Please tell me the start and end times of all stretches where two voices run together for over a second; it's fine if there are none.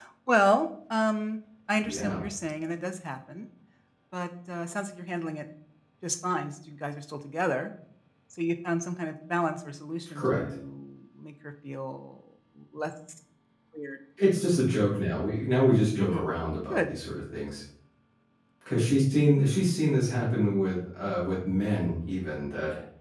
none

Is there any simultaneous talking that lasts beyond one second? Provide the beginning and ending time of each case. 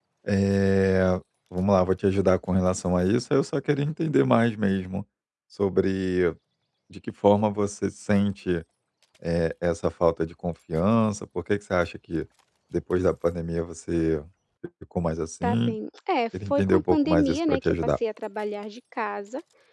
16.5-17.9

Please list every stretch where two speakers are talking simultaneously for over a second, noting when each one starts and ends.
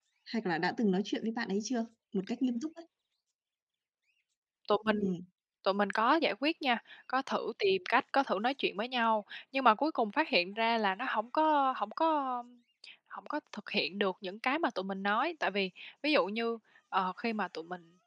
none

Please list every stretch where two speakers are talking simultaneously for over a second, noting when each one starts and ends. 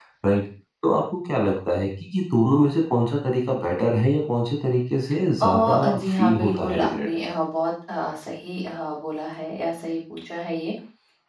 5.4-7.1

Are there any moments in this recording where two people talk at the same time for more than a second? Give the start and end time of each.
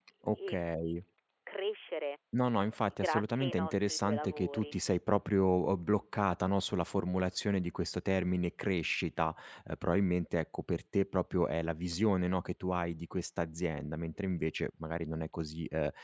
3.0-4.8

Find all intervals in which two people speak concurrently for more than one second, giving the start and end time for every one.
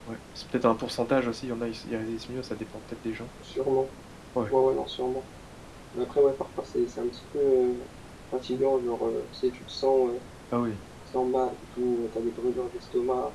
none

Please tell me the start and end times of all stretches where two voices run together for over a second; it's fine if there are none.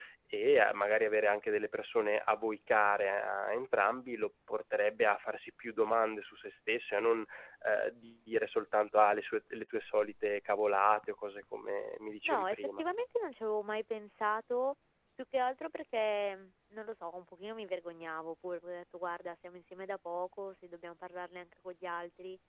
none

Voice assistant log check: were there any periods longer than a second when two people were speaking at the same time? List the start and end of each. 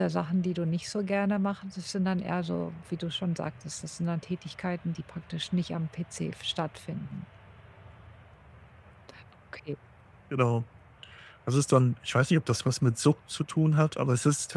none

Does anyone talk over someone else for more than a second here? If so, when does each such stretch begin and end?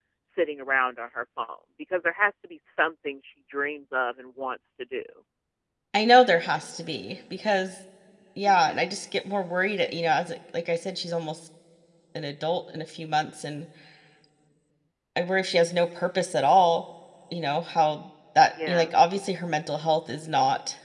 none

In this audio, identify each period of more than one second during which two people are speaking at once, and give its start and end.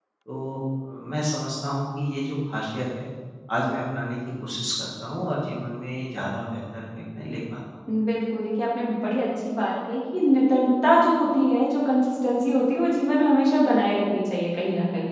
none

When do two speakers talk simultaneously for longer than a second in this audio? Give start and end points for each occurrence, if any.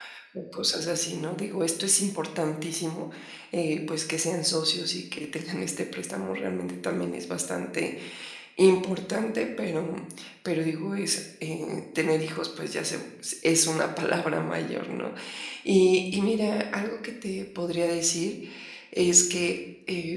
none

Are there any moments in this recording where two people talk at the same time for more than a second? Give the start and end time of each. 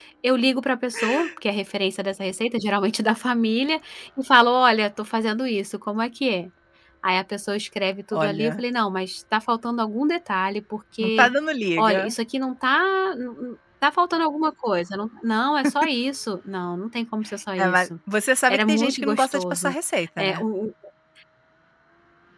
18.5-19.7

